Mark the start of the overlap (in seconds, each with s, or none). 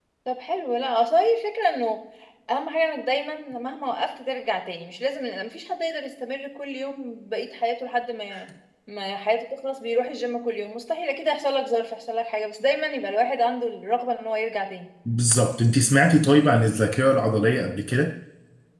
none